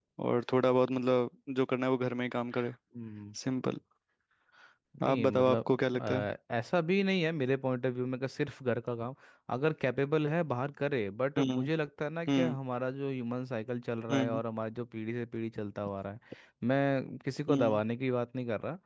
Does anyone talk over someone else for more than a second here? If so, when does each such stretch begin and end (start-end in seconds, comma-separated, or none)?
5.0-6.2